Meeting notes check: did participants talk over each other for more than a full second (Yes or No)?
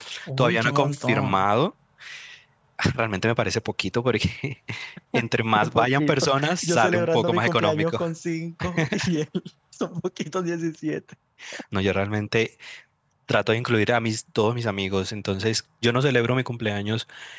Yes